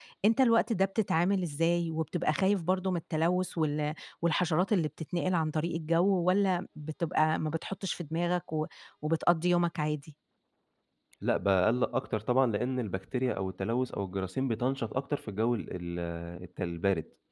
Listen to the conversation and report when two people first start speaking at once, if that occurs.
none

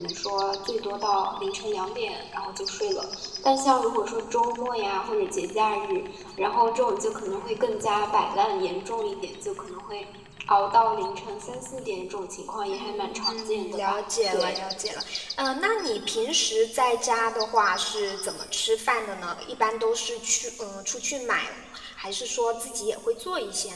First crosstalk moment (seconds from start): 12.7 s

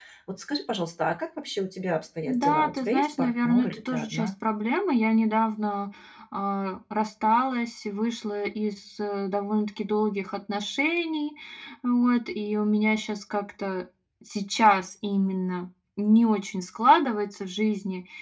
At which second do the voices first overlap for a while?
2.3 s

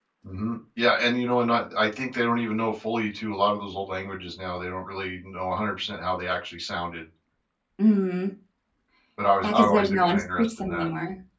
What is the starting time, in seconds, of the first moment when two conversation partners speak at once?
9.4 s

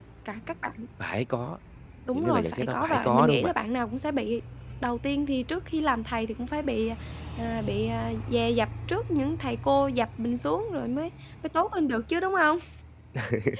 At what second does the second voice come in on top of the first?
2.1 s

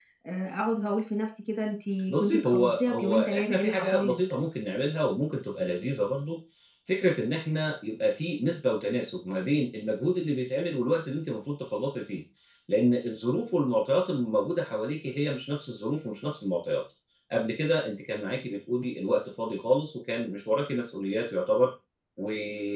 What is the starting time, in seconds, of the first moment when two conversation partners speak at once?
2.1 s

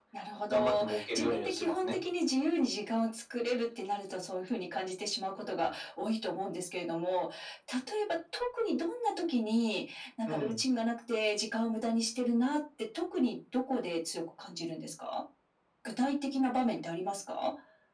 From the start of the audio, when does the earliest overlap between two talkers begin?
0.5 s

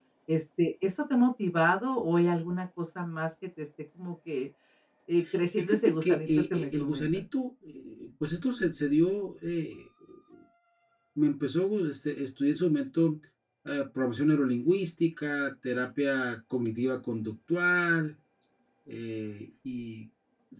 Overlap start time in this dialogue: 5.6 s

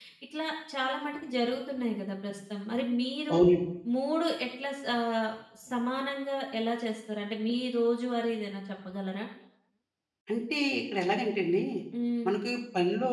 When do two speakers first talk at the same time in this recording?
none

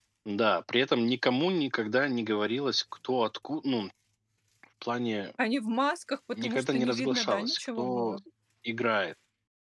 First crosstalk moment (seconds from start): 6.4 s

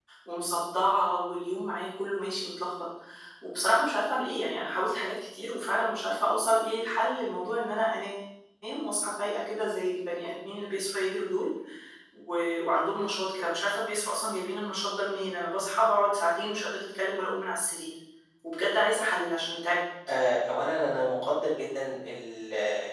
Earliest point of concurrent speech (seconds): none

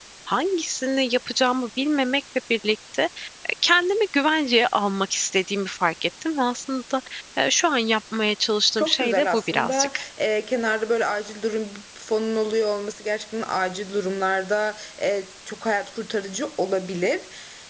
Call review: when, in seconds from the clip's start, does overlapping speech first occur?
8.8 s

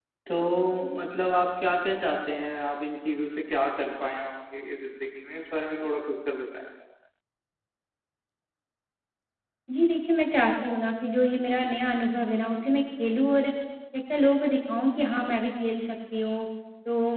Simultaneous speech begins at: none

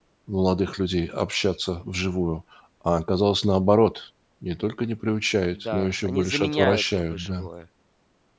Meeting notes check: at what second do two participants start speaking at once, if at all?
5.6 s

